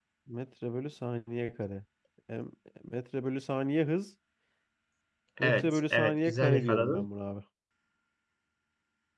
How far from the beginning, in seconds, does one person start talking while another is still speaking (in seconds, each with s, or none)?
5.4 s